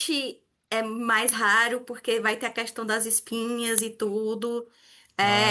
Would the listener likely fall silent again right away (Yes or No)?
Yes